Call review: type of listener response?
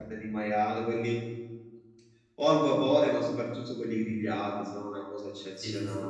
taking over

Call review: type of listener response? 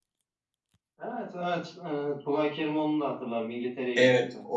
taking over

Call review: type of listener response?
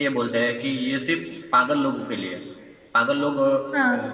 listening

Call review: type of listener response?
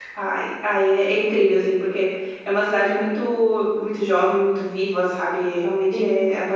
taking over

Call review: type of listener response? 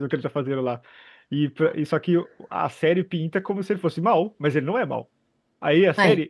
listening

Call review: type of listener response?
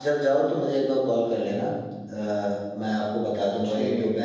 listening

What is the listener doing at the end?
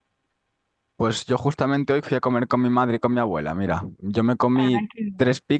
listening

